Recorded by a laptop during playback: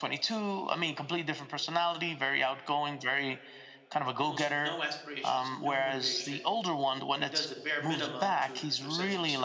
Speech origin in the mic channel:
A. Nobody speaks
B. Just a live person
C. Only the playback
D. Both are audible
D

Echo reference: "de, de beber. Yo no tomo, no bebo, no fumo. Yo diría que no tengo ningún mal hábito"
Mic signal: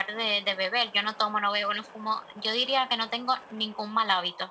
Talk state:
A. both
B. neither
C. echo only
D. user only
C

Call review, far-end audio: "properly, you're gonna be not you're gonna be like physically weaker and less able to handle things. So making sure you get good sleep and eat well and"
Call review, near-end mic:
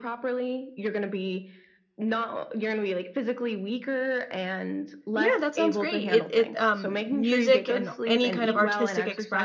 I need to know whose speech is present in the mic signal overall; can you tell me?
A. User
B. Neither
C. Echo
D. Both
D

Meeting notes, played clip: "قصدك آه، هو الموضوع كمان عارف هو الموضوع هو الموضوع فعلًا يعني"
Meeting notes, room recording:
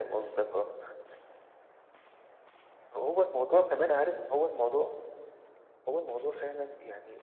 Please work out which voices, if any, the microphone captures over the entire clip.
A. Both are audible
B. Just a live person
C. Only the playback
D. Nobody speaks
C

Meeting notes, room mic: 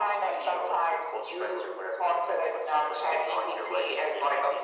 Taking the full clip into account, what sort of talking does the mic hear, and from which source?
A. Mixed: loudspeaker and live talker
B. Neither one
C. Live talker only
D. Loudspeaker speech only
D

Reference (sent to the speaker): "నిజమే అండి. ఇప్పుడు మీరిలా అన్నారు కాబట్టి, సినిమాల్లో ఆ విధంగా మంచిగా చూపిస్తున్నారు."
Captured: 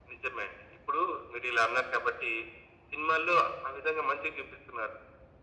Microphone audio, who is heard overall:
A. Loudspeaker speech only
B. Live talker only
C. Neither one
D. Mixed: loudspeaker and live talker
A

